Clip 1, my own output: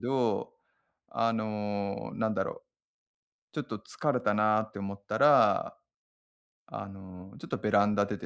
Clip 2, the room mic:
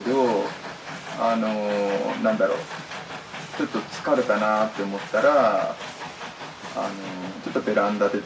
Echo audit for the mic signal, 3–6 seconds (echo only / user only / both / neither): echo only